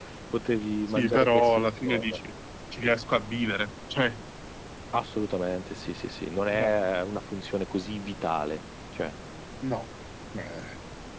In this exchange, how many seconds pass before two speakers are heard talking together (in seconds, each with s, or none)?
0.9 s